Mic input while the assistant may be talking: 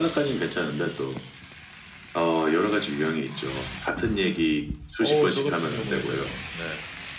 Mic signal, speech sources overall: both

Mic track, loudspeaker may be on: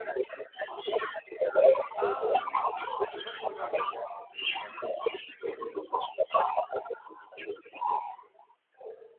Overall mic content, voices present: both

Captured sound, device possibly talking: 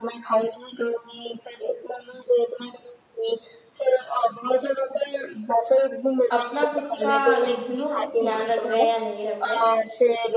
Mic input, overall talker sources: both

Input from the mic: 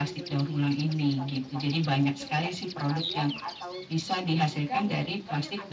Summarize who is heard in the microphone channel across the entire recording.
echo only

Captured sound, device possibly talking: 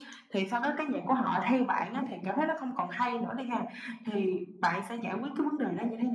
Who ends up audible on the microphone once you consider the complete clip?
echo only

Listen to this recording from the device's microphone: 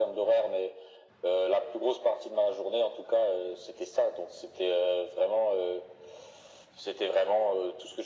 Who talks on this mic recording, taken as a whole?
echo only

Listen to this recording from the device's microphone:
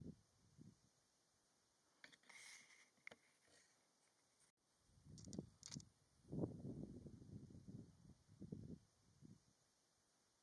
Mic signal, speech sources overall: neither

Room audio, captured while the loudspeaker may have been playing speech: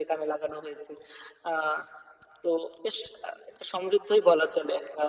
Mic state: echo only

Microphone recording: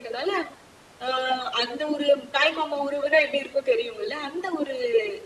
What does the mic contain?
echo only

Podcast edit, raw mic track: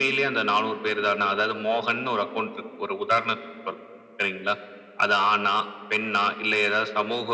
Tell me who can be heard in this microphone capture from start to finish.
echo only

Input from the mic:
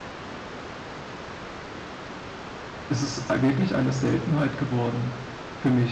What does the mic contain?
user only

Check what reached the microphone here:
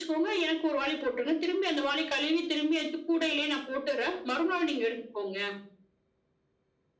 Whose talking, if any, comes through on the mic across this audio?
echo only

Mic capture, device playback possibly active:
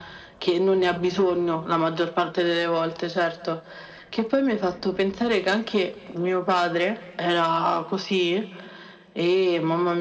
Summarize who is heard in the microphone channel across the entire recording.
echo only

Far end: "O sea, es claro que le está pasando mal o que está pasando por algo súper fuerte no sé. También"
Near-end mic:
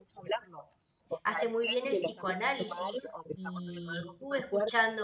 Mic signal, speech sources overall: both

